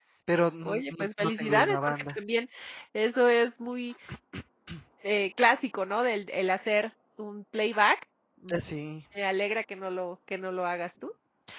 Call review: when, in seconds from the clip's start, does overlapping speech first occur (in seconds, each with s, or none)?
0.7 s